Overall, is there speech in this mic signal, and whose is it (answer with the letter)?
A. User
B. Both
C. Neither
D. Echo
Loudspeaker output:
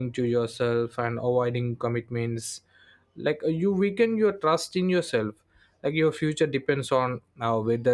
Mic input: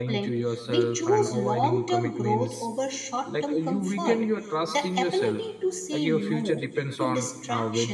B